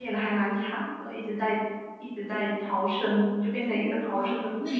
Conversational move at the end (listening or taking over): taking over